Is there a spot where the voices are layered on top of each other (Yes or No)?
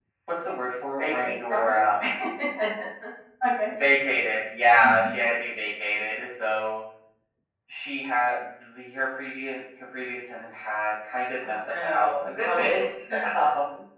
Yes